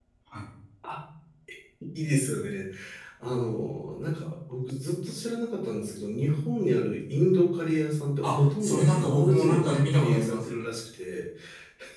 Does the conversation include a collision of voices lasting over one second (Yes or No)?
Yes